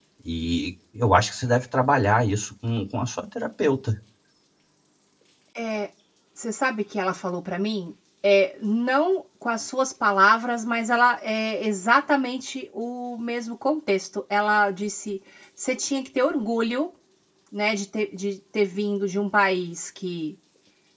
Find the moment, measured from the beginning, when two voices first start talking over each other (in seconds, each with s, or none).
none